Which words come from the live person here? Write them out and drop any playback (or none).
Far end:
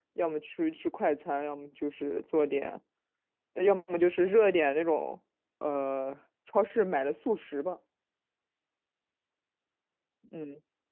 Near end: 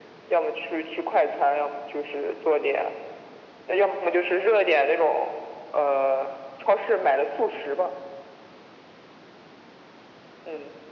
none